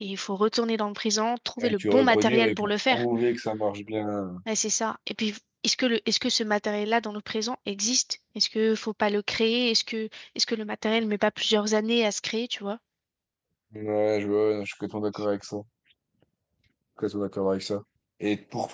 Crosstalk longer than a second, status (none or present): present